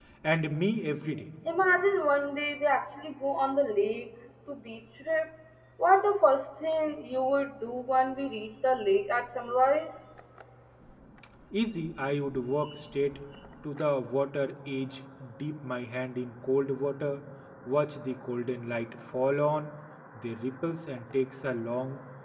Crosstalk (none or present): none